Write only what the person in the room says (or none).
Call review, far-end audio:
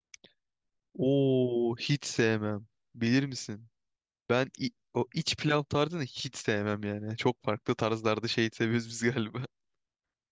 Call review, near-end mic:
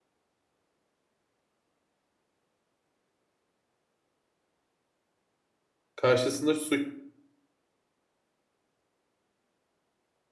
Karşısında su-